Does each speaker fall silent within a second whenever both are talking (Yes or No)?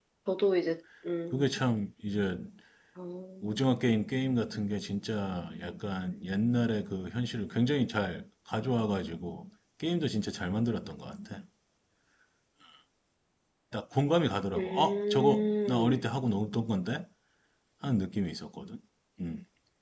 No